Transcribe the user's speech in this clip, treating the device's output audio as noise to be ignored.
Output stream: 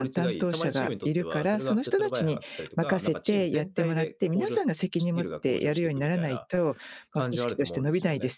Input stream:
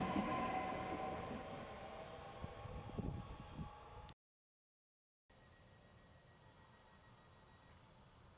none

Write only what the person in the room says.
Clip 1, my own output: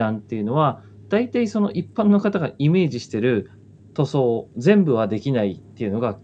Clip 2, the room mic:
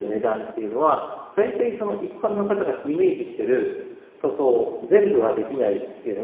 none

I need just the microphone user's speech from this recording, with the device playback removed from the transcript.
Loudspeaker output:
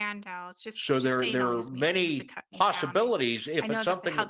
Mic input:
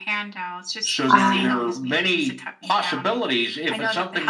Uh,

